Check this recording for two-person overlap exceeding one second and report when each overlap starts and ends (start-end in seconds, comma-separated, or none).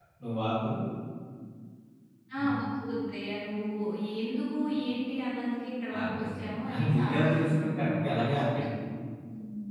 6.0-8.0